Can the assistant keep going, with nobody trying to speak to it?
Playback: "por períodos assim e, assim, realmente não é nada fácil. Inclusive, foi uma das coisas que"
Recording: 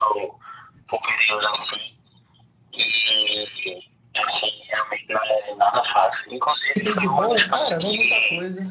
No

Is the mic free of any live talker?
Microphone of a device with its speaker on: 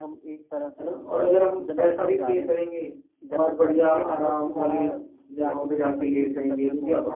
No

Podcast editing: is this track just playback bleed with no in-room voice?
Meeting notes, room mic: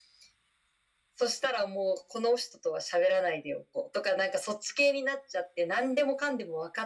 Yes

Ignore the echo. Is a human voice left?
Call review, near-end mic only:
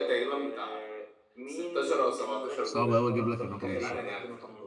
Yes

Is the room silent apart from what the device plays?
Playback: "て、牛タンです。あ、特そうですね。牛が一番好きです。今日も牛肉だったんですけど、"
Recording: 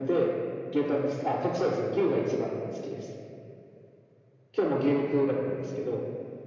Yes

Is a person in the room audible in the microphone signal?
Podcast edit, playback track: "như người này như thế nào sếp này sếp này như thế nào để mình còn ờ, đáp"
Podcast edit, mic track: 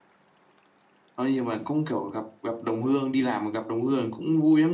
Yes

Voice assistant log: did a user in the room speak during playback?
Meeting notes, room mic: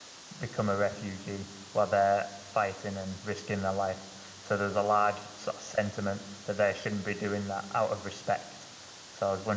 Yes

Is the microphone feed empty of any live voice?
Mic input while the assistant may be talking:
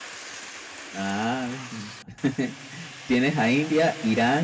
No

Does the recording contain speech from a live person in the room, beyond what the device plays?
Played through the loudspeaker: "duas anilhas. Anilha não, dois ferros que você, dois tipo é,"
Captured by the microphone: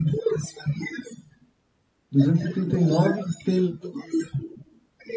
Yes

